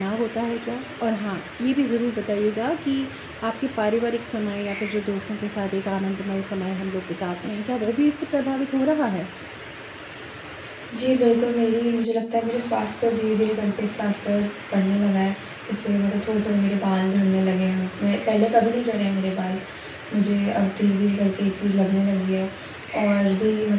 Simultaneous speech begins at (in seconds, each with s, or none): none